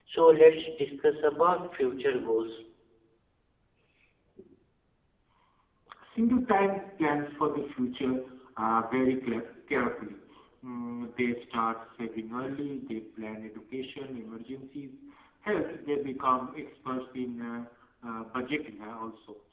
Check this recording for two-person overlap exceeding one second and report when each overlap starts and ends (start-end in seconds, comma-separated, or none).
none